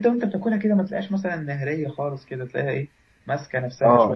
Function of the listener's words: taking over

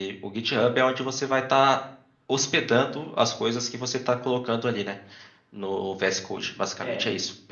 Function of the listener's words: taking over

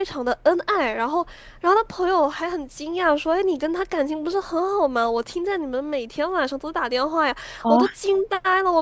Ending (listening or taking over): listening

